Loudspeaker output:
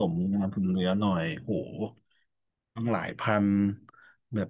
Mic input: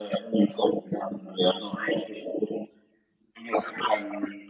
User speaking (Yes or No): No